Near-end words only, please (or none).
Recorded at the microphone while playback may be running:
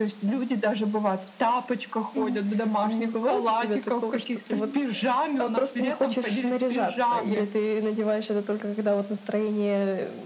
Мгм.